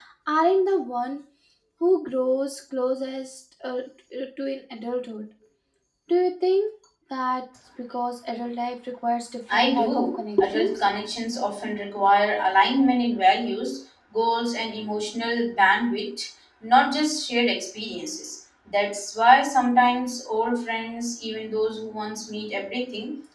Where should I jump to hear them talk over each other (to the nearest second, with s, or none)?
9 s